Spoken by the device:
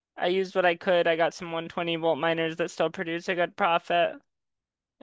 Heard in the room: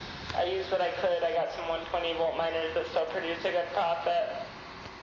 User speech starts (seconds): none

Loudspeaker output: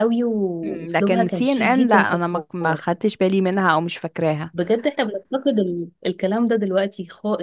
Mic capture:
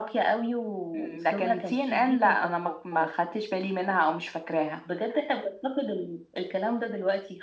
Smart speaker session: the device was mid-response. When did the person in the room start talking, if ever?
none

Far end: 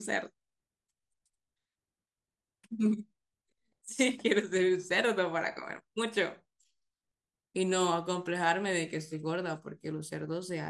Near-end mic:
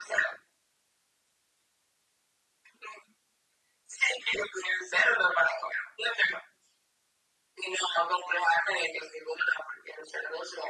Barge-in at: none

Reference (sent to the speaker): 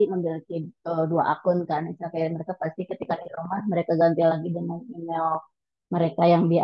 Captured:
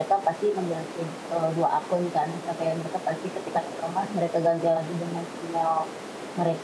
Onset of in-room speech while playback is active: none

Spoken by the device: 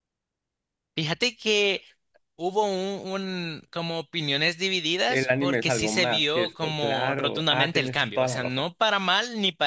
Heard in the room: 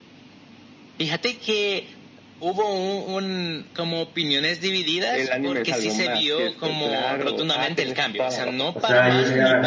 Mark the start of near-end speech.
9 s

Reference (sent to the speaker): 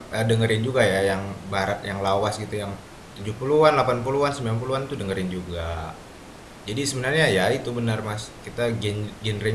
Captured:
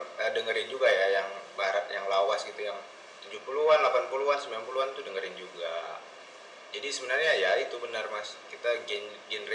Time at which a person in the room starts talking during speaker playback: none

